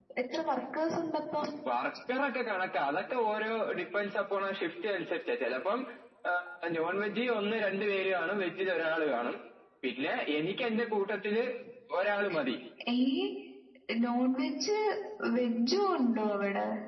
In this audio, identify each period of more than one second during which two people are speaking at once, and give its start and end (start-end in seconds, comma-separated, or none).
none